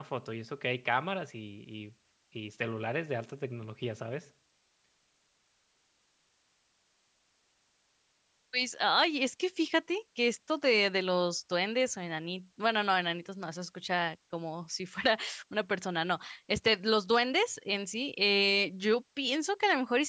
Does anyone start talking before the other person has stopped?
No

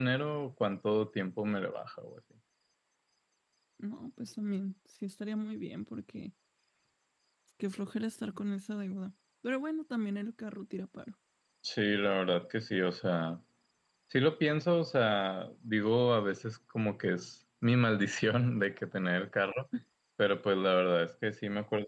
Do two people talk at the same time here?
No

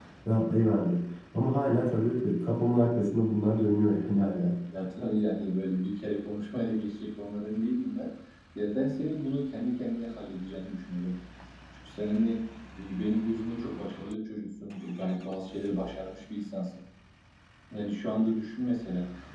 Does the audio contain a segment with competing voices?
No

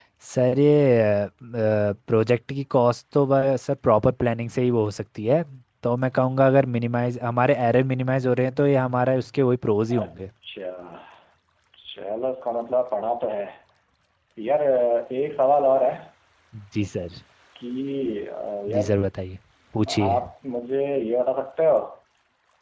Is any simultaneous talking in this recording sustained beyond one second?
No

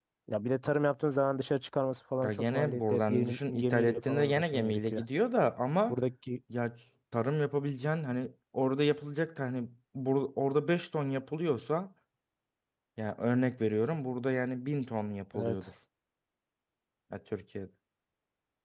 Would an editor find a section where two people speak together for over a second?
Yes, from 2.2 s

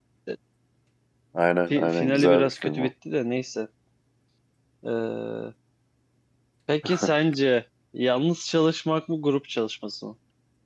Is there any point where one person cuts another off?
Yes, from 1.7 s

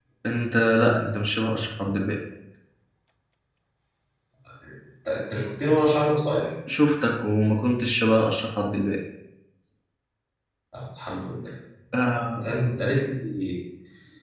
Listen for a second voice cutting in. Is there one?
No

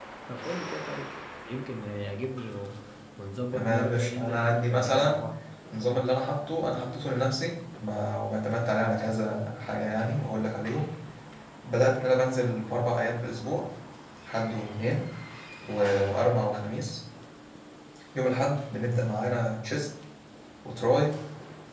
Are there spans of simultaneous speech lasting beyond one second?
Yes, from 3.5 s

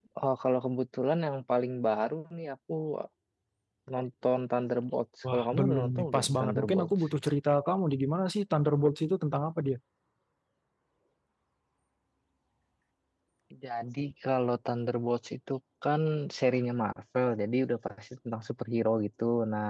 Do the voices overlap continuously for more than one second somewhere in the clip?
Yes, from 5.2 s

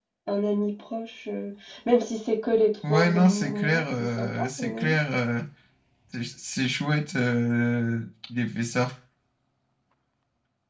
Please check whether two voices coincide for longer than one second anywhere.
Yes, from 2.8 s

